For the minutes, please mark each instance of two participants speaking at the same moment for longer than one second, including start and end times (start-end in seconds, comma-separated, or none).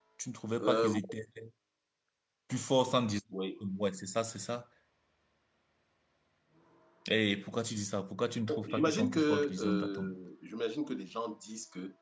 8.7-10.1